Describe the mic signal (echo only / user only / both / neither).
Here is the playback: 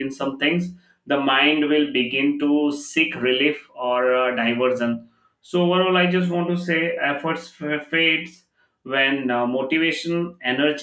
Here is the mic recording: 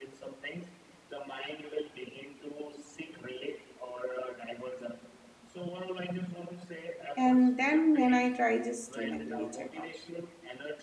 both